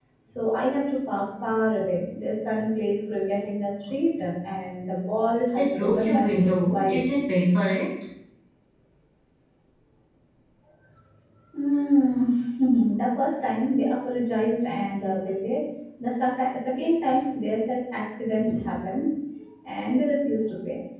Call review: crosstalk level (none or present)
present